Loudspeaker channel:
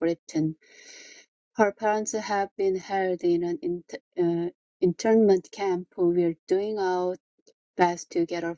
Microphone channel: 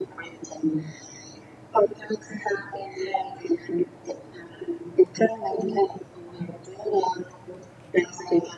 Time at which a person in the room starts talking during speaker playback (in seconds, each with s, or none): none